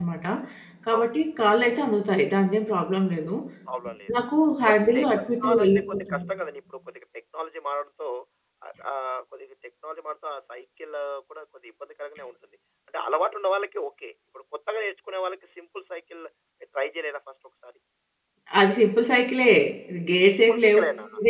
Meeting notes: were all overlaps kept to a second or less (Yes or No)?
No